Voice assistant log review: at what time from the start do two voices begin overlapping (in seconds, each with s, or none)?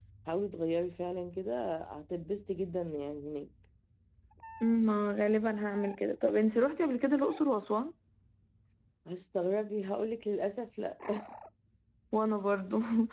none